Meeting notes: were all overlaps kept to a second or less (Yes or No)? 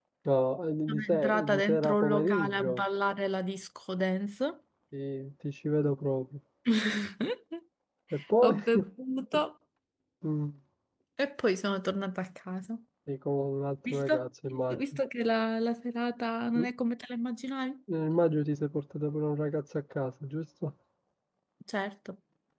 No